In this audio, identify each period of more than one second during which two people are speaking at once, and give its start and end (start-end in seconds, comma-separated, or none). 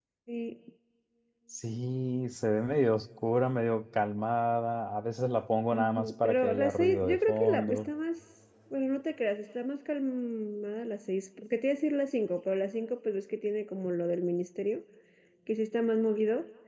5.7-7.9